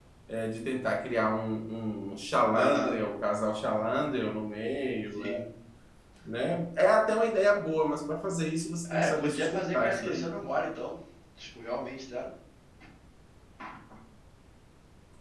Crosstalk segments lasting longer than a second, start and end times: 8.9-10.3

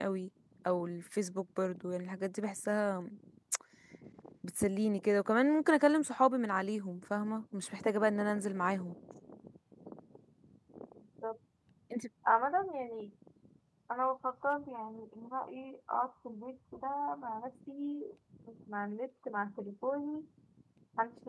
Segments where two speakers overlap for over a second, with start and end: none

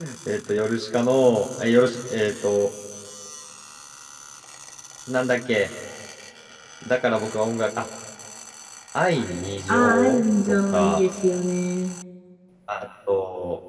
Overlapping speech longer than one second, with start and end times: 9.7-11.0

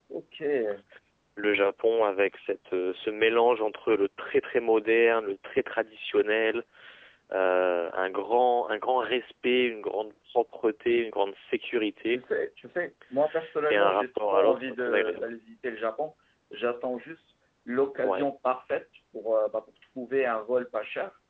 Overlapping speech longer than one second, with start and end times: 13.7-15.2

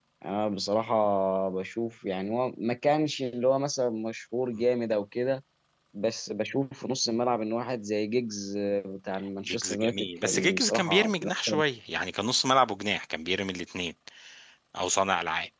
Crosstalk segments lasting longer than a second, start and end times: 9.5-11.6

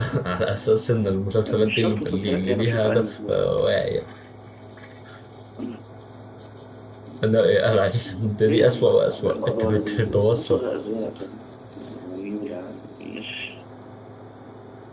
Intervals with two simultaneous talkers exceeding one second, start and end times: 1.5-3.4, 8.4-10.6

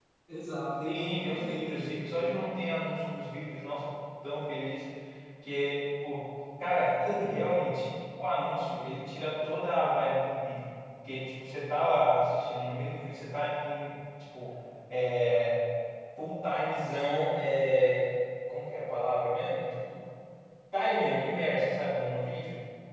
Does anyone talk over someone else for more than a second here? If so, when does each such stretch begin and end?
0.9-2.3

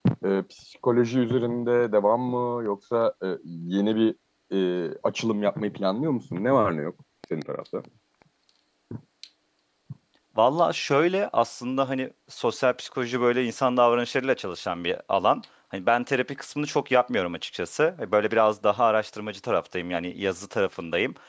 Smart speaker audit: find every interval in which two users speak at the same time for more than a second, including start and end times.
none

